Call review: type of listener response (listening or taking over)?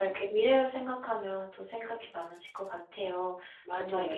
listening